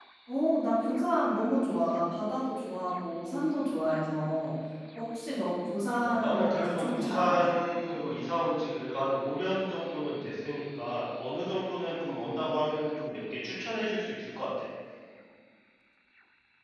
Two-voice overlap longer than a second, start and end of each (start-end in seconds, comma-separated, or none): 6.0-7.5